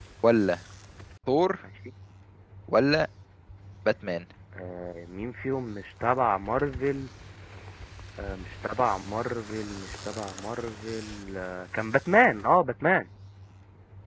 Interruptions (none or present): none